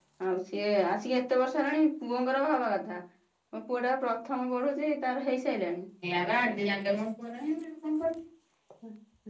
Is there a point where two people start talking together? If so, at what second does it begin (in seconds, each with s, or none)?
none